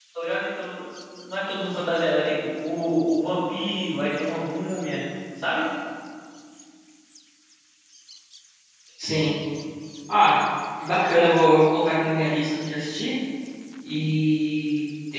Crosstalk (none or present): none